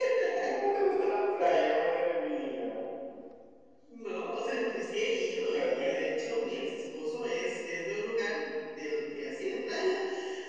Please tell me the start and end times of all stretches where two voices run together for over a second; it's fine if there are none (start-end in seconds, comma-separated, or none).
none